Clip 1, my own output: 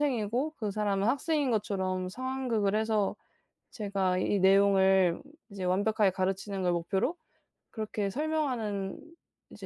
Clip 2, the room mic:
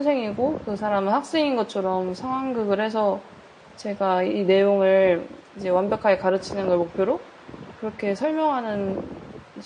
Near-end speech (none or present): none